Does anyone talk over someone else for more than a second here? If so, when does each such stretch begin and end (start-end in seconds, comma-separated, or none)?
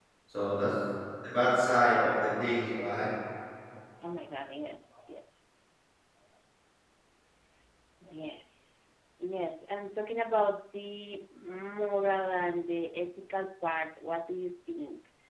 none